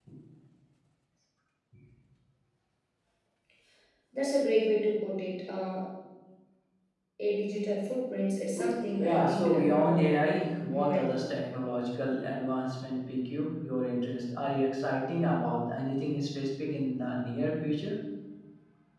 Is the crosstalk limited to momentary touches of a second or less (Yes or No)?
No